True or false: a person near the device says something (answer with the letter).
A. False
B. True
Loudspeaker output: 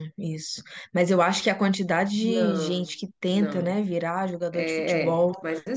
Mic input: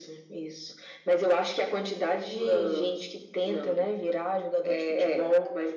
A